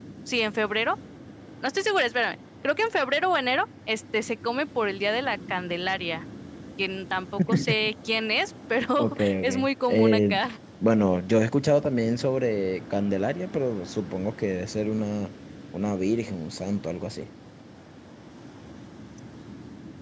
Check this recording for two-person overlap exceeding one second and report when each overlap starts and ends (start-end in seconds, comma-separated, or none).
9.0-10.3